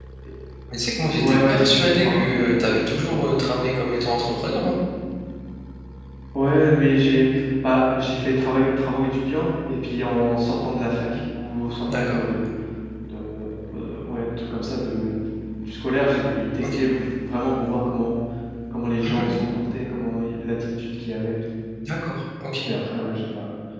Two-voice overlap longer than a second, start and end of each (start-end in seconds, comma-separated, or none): 1.2-2.5